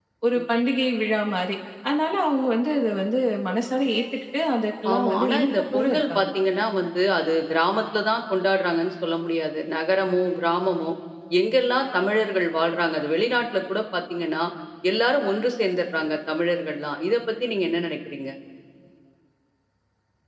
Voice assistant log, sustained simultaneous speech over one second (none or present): present